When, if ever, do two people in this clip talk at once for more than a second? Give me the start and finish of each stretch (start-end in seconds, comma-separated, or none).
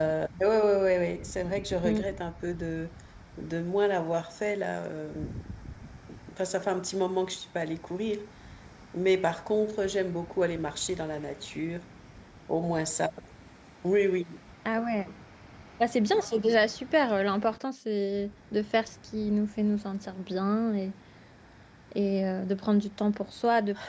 none